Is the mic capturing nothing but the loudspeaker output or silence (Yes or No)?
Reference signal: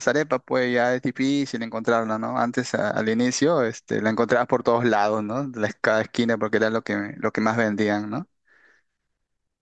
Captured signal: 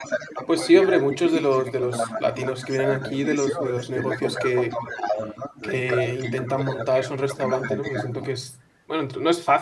No